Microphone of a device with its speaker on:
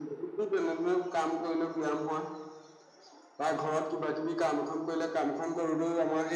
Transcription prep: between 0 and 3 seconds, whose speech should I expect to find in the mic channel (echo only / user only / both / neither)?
echo only